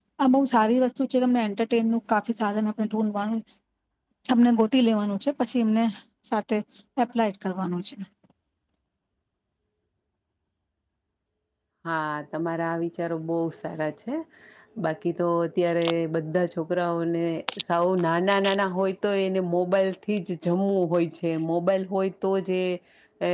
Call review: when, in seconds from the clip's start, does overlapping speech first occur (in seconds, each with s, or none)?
none